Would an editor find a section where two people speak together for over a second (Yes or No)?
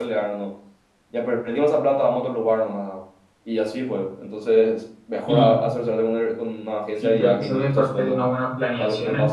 Yes